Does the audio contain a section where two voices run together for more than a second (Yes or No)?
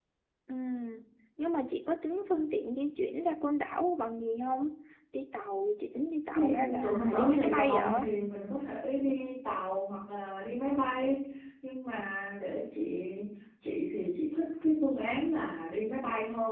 Yes